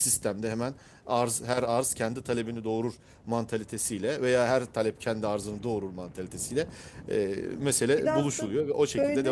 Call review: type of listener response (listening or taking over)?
taking over